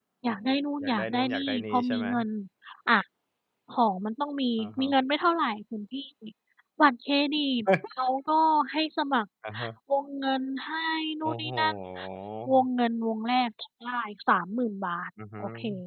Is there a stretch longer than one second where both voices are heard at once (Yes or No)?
Yes